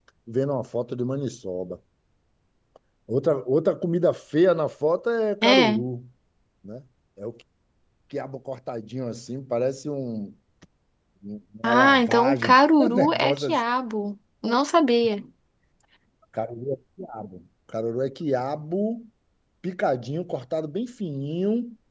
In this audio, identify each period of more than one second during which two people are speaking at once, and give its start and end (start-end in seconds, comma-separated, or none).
11.6-13.6